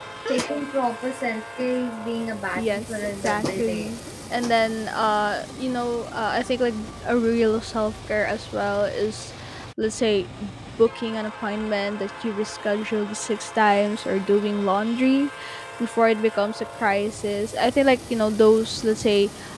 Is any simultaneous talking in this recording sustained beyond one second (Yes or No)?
Yes